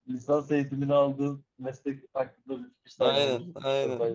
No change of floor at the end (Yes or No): No